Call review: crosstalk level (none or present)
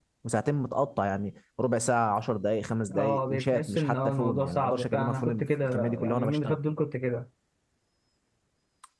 present